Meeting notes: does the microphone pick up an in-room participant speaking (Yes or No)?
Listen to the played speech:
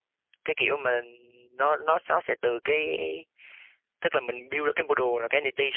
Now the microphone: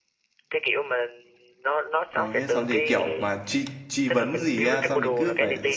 Yes